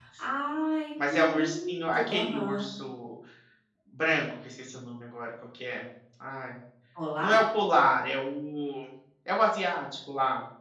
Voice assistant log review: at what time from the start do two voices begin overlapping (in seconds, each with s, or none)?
1.1 s